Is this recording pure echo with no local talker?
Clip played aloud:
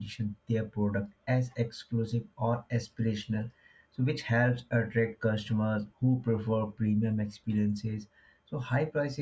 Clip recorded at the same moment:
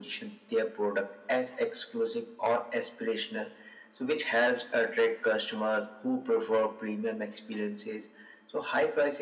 Yes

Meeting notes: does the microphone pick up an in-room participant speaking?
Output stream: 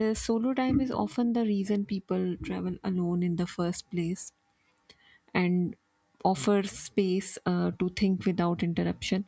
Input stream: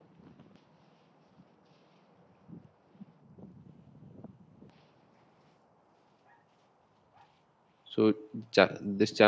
Yes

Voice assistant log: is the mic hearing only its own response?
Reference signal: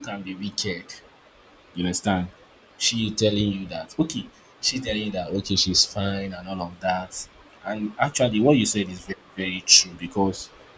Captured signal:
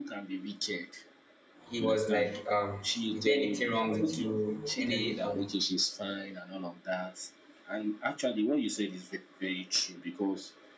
No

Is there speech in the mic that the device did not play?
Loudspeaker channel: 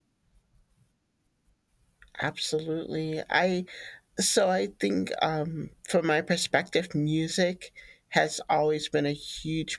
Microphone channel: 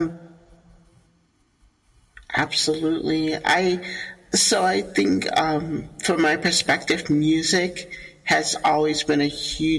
No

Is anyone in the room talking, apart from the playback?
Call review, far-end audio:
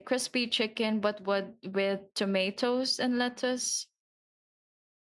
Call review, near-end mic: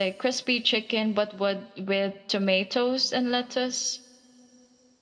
No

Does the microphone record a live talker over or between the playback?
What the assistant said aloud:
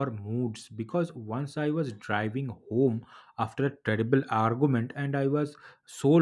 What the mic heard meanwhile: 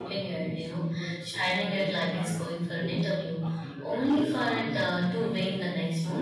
Yes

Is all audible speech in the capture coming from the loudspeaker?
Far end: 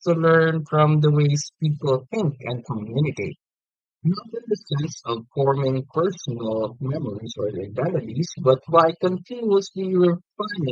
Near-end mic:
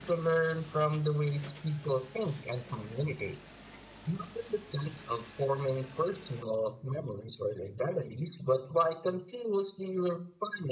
Yes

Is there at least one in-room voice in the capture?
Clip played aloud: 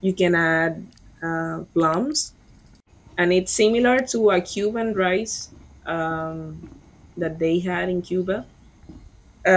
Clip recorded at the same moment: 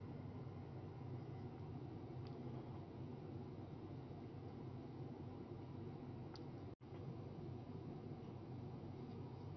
No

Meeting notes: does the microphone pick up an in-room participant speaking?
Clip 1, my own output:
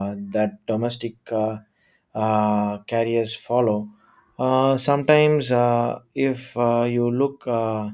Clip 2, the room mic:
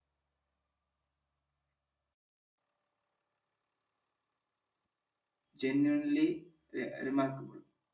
Yes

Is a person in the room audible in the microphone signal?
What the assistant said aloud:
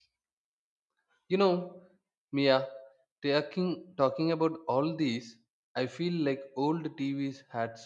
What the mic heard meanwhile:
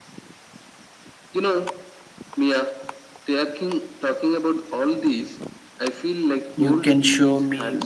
Yes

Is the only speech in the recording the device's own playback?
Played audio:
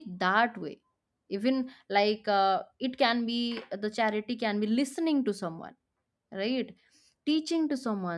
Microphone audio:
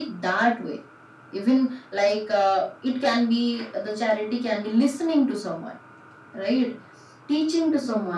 Yes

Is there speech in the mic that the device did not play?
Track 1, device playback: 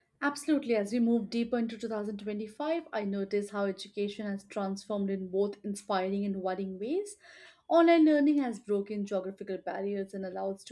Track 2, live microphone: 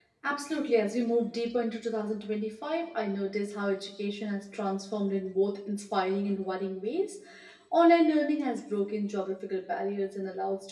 No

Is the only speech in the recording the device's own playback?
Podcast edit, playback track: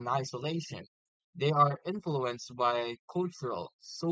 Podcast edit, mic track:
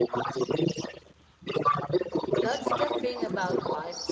No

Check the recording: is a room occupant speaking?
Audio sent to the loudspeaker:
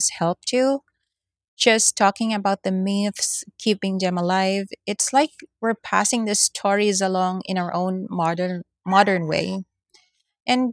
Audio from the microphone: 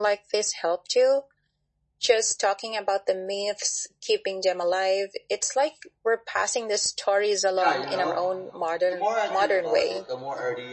Yes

